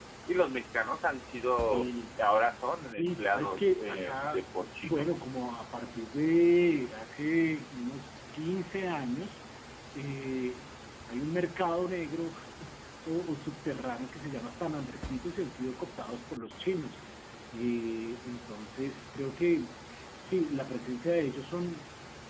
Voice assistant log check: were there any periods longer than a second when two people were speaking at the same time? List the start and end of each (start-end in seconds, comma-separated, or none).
2.9-5.1